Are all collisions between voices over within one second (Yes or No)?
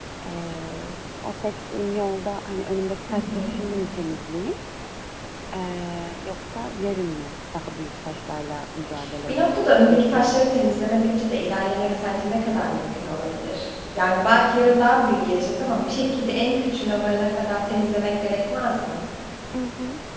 No